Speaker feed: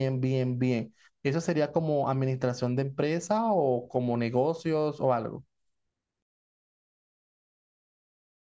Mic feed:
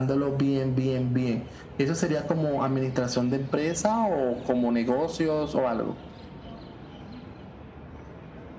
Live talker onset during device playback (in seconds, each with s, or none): none